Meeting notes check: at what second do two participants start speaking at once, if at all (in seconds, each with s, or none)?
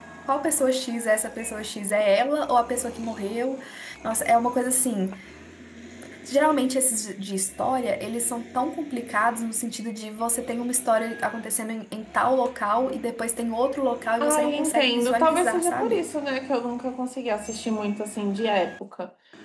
14.2 s